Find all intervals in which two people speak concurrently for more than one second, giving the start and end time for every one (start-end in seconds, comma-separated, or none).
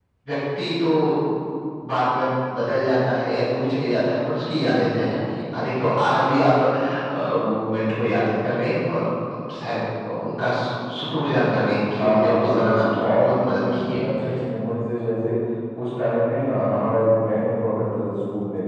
12.0-14.0